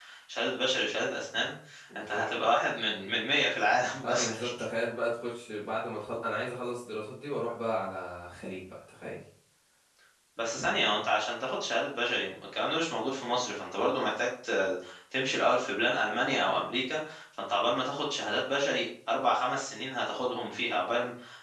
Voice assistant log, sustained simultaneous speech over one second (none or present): none